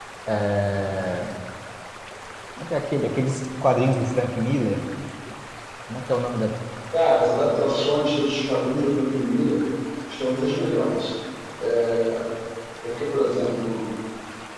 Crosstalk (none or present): none